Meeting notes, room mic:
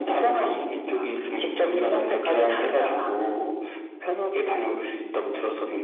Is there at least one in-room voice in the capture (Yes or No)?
No